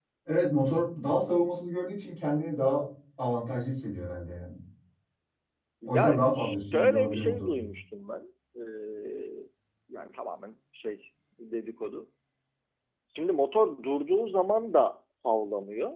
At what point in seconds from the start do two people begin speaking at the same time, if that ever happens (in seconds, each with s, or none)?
5.8 s